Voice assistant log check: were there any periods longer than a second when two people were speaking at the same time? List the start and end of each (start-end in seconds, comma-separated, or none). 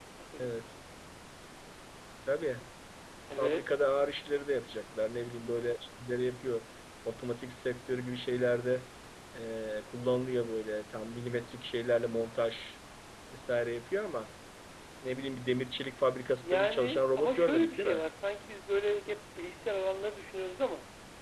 16.4-18.0